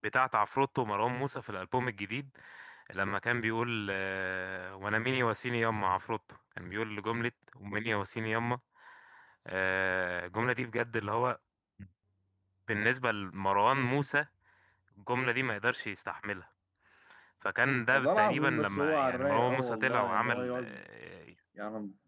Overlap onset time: 18 s

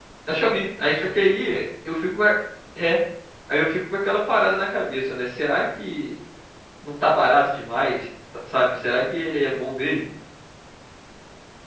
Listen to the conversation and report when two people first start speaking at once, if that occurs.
none

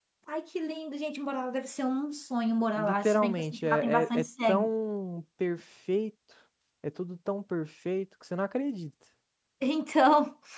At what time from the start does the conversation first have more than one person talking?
3 s

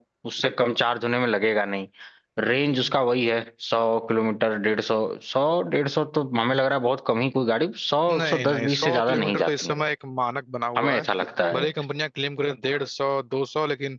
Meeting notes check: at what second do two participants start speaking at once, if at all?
8 s

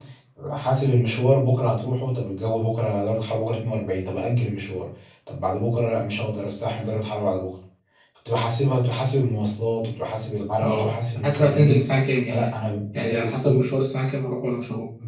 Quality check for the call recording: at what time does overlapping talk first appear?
11 s

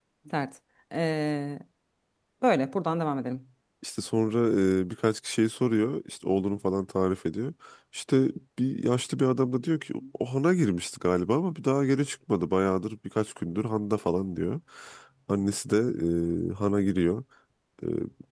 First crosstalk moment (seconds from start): none

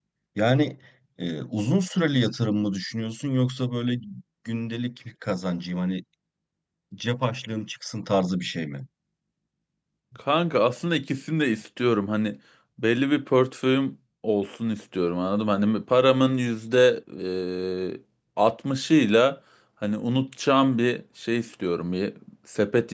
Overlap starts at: none

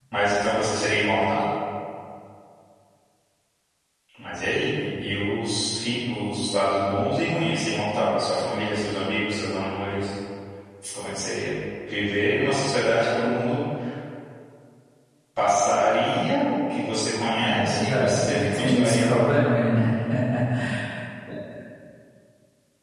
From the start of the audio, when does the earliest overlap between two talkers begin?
17 s

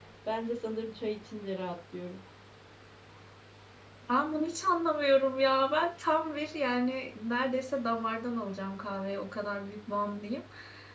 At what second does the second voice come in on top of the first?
none

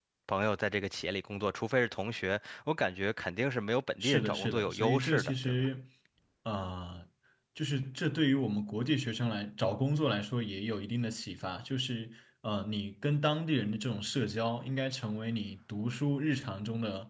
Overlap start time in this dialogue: 4 s

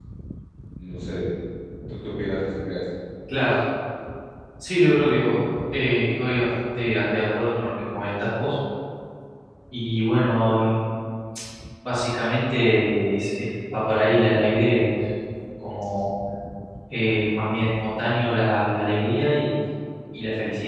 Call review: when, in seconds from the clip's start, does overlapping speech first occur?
none

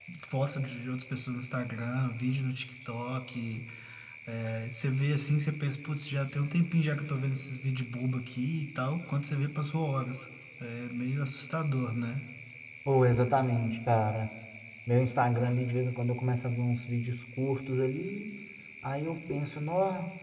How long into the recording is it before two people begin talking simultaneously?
none

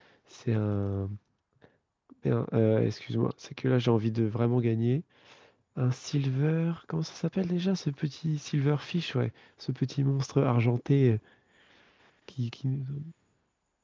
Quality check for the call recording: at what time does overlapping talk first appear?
none

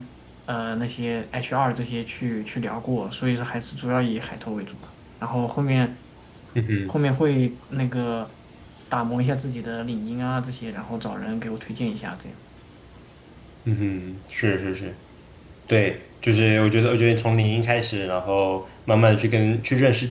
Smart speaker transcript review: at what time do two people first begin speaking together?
none

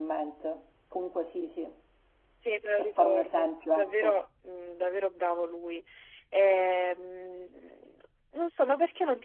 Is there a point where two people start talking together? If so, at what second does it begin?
3 s

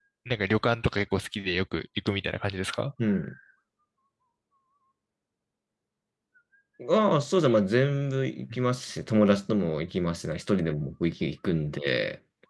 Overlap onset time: none

